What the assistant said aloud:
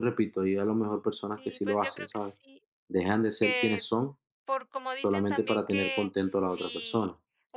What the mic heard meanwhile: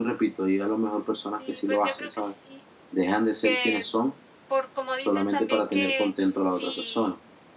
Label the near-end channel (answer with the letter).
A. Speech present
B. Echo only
B